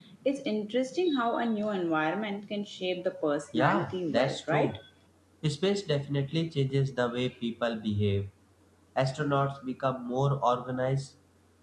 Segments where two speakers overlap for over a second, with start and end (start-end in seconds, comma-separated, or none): 3.5-4.8